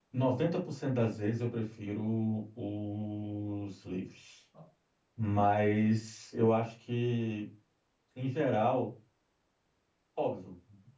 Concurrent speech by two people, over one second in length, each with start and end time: none

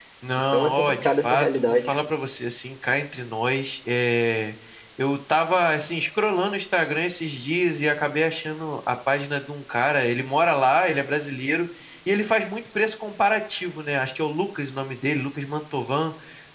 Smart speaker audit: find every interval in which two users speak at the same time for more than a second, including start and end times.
0.5-1.9

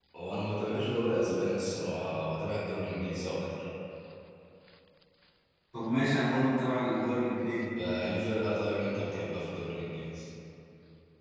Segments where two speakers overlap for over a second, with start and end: none

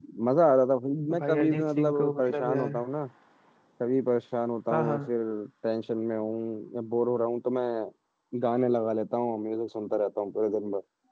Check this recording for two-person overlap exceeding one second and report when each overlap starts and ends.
1.2-2.8

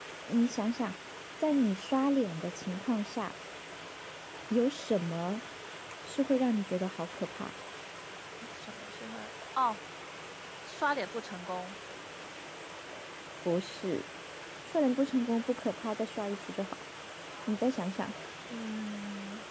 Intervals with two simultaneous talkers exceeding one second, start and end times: none

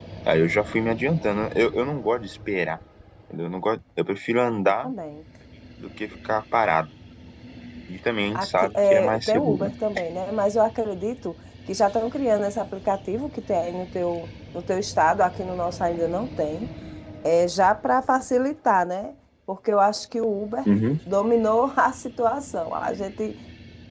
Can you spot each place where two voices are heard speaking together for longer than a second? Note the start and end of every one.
8.3-9.7

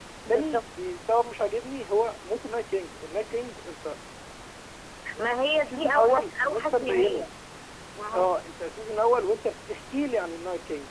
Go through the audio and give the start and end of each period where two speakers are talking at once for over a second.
5.4-7.2

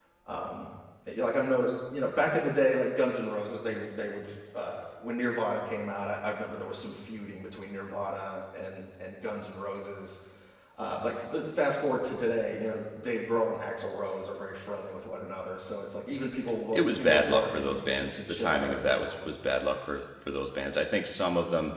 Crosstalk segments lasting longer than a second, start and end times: 16.7-19.3

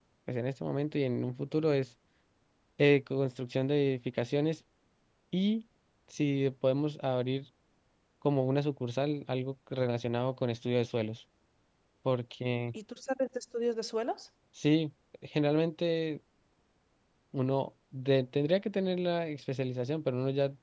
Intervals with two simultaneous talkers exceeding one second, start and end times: none

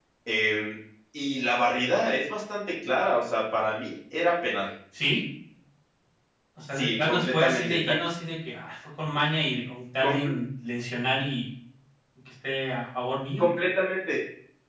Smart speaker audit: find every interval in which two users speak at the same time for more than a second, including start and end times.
6.7-8.0

